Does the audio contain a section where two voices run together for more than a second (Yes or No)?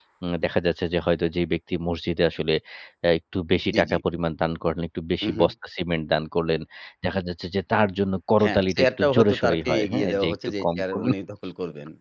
Yes